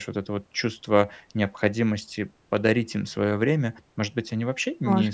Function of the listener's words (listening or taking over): listening